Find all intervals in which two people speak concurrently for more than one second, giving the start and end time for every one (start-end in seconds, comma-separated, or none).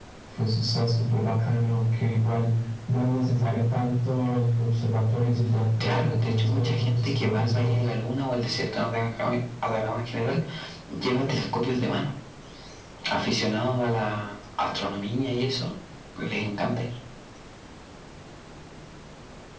5.8-7.9